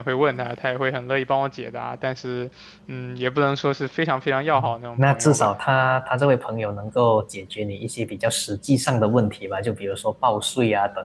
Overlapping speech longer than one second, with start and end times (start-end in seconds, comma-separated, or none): none